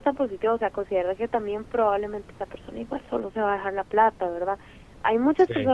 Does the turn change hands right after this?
No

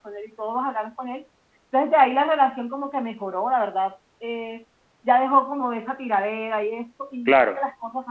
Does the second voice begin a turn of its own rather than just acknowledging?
No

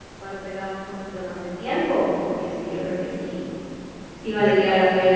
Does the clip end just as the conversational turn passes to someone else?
No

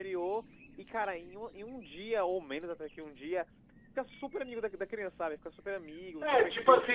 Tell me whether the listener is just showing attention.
No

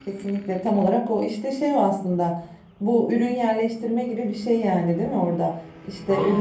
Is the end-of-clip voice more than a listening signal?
No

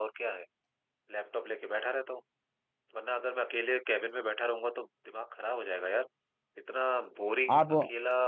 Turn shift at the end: No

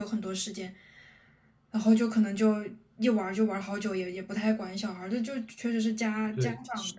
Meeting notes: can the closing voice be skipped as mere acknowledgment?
No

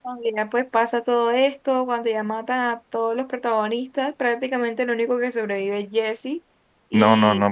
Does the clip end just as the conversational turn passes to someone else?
Yes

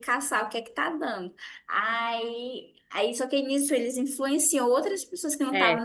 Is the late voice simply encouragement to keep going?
Yes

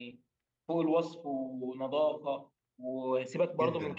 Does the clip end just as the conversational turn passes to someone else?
No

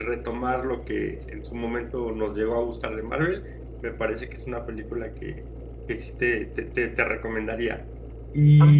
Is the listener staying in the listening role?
No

